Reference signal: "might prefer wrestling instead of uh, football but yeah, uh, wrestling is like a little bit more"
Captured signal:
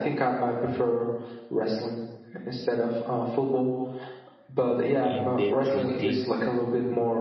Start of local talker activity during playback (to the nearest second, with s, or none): 5 s